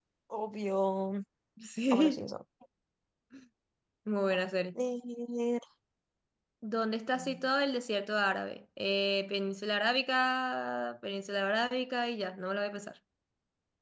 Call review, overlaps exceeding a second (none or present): none